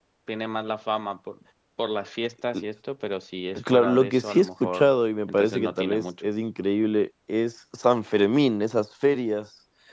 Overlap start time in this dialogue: 3.6 s

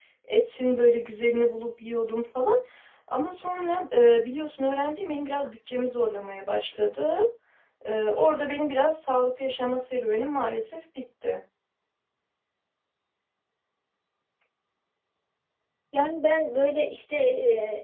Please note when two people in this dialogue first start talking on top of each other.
none

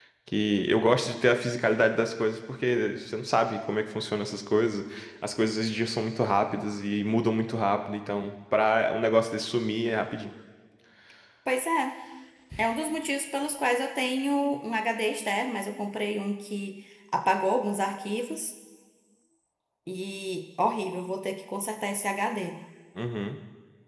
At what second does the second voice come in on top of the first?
none

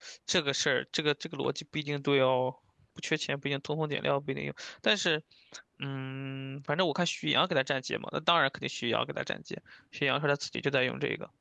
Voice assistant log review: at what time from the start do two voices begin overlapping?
none

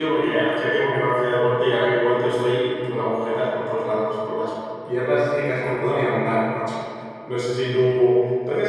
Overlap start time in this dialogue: none

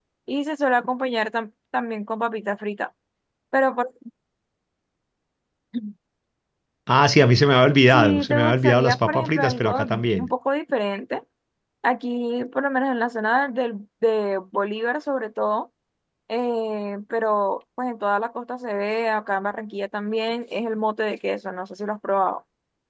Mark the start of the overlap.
7.9 s

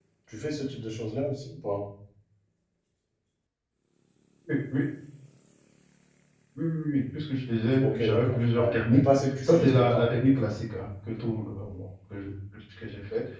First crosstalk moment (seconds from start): 7.8 s

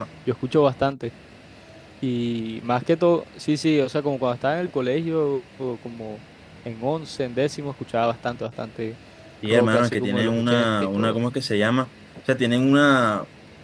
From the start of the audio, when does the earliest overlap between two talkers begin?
9.4 s

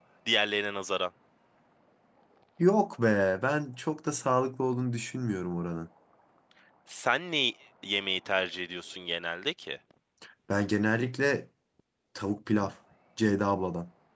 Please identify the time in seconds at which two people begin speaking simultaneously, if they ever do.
none

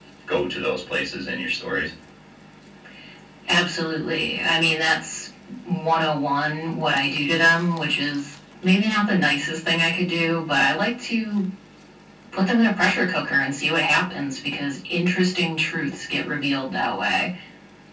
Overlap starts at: none

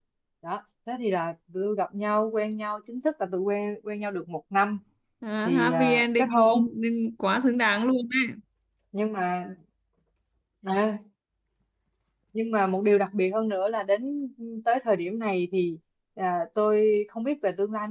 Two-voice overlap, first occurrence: 5.5 s

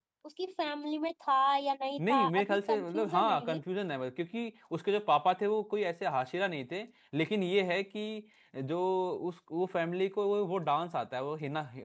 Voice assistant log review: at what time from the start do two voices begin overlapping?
2.0 s

